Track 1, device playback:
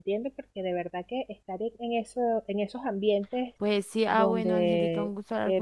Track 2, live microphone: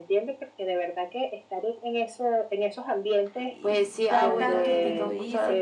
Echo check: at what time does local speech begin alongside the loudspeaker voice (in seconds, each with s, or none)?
3.4 s